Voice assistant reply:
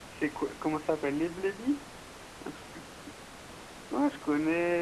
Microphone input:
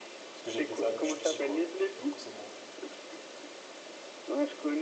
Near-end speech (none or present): present